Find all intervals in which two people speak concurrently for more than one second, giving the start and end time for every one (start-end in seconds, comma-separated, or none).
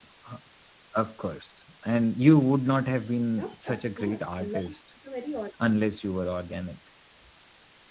3.3-4.6